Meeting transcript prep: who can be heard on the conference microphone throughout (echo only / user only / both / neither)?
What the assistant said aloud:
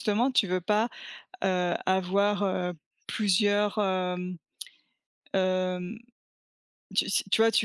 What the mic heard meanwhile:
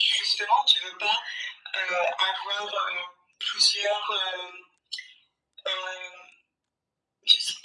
echo only